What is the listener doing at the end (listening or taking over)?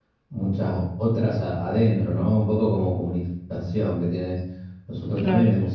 listening